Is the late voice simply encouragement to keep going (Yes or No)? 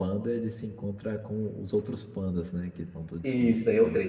No